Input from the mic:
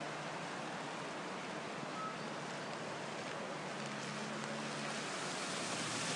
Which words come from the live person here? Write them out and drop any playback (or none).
none